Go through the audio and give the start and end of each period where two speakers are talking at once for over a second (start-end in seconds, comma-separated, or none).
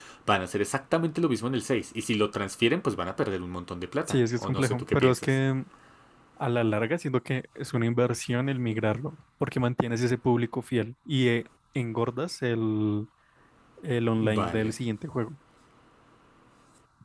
4.1-5.3